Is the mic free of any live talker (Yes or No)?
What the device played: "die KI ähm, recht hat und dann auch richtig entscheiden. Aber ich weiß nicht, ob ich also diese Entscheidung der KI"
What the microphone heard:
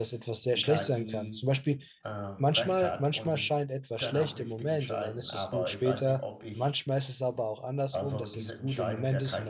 No